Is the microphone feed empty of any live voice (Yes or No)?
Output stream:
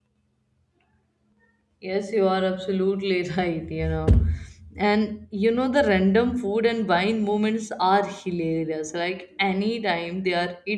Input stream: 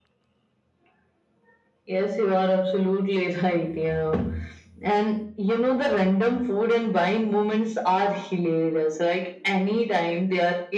Yes